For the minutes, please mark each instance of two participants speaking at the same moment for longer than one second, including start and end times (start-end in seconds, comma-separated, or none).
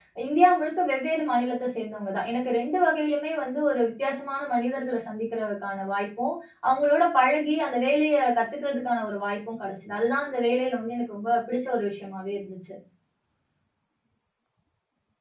none